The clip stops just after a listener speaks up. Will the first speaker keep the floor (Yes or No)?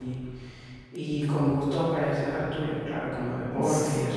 No